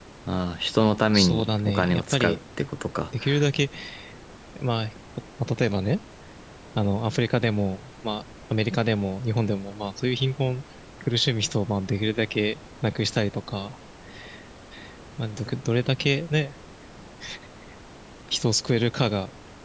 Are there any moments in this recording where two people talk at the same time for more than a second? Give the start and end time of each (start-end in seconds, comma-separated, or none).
1.1-2.4